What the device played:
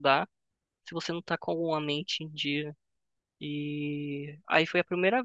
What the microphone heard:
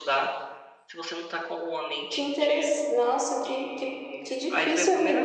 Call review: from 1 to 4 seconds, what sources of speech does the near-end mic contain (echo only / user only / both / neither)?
both